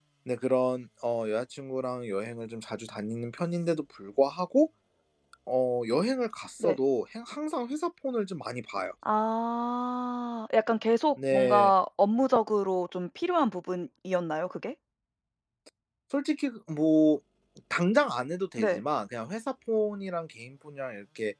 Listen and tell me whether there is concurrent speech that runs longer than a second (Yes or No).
No